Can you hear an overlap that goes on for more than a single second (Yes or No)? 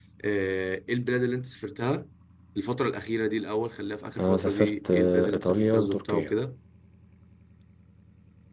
Yes